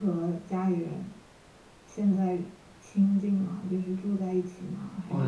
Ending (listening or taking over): taking over